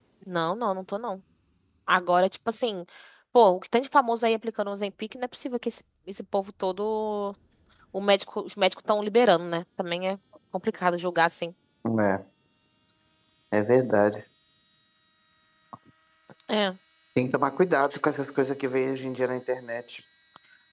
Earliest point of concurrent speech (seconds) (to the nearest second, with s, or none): none